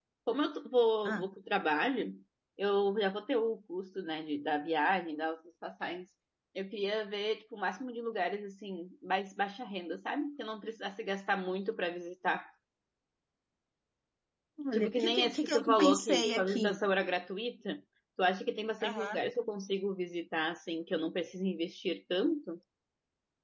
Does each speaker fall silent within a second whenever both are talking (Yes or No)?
No